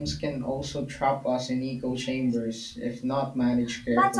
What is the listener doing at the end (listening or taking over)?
taking over